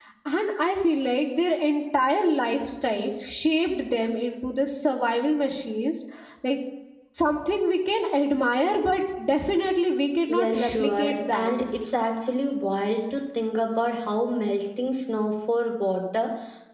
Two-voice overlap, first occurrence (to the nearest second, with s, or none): 10 s